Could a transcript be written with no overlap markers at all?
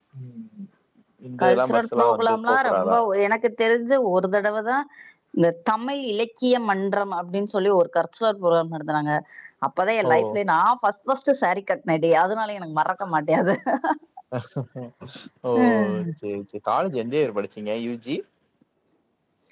No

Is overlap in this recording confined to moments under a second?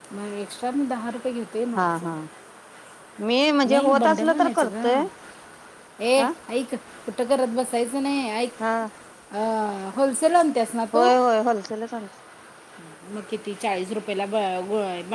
No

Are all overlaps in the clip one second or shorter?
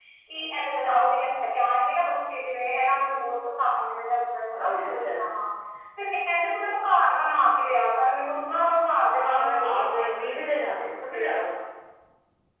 No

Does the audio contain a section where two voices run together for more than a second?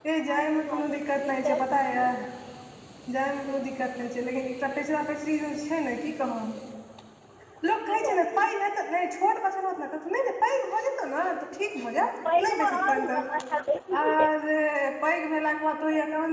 Yes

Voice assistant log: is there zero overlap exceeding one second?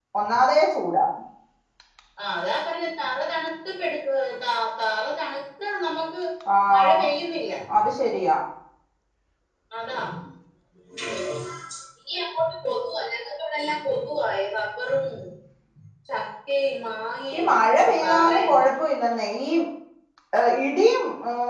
No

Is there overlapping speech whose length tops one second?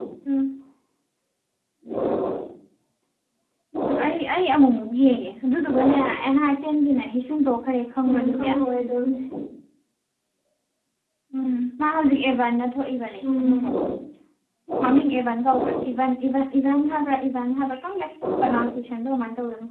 No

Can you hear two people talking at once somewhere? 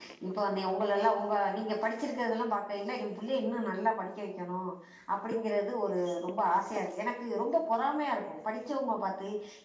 No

